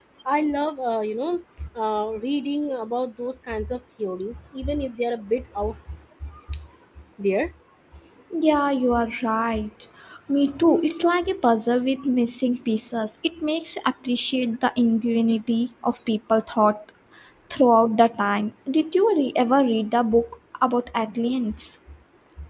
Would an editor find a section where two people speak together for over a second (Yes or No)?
No